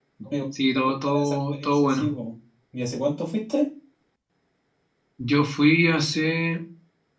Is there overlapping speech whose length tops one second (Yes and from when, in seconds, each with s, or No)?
Yes, from 0.8 s